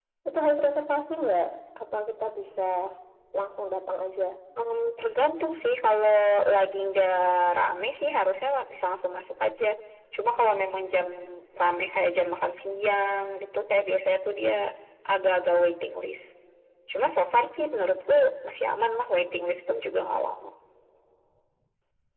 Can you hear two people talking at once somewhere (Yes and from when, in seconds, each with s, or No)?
No